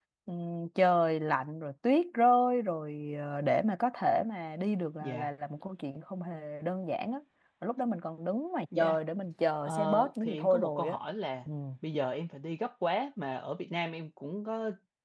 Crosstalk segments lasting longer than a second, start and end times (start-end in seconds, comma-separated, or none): 9.7-11.0